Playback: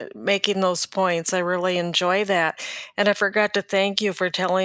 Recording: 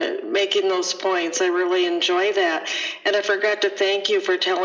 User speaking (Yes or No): No